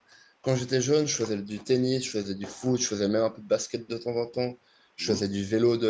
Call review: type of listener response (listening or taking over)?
listening